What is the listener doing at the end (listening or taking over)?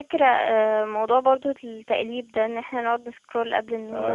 taking over